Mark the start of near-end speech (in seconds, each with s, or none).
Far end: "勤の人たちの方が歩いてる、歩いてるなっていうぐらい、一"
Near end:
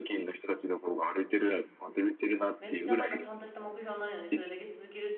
2.6 s